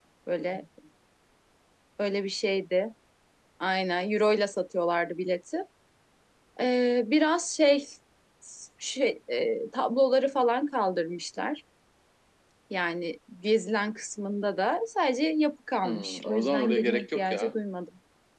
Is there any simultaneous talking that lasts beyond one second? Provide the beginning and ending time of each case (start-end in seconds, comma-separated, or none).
15.8-17.5